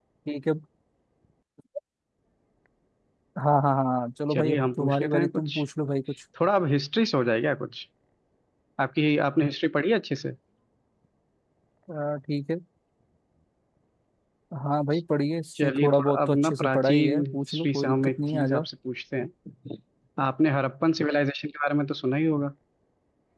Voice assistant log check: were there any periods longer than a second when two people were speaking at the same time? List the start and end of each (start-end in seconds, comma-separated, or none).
4.3-5.5, 15.6-18.6